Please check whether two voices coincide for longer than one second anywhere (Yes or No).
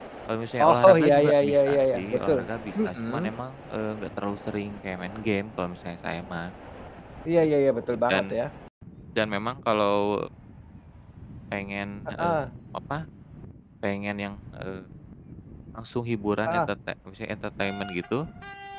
Yes